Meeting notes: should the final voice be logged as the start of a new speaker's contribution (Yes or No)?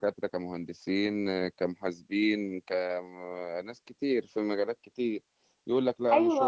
Yes